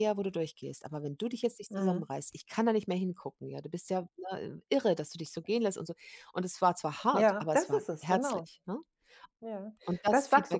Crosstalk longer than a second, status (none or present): present